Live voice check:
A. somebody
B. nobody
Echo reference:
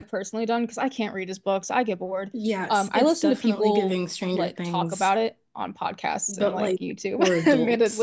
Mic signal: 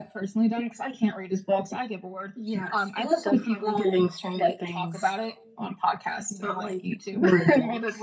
B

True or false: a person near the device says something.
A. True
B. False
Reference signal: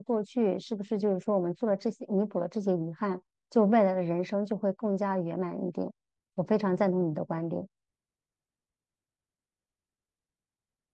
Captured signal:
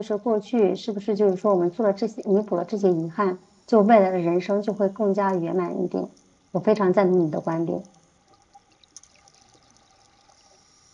B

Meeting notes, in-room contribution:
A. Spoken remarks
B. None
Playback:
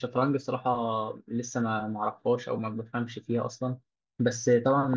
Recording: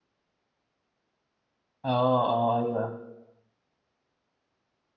A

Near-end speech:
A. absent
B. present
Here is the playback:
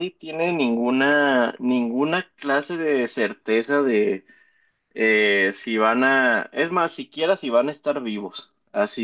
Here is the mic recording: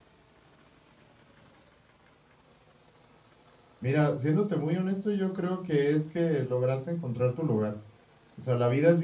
B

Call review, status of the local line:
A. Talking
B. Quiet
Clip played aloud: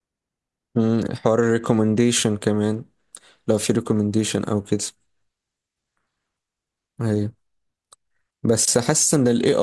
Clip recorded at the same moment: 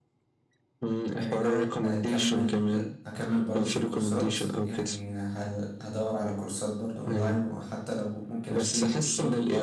A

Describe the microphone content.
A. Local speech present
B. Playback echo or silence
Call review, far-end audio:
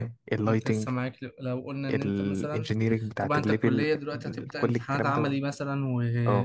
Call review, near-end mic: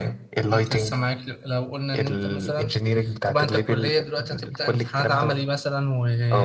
B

